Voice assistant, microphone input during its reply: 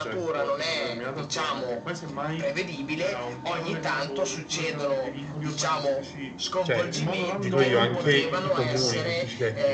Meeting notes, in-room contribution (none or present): present